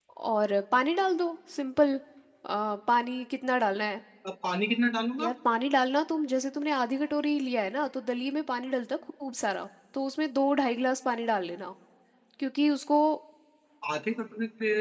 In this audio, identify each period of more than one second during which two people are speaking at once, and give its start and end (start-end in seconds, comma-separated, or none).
none